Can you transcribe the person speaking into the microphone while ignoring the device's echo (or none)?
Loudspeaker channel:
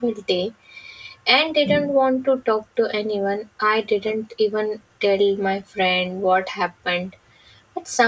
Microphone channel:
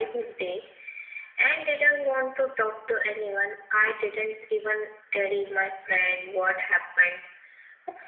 none